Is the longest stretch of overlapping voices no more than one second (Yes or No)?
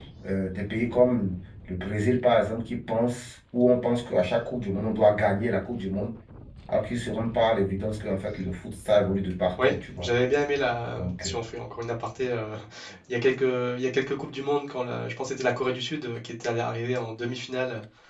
Yes